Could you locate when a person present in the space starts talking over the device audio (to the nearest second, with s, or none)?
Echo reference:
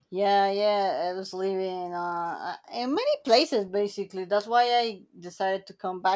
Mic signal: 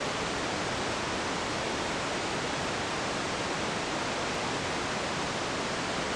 none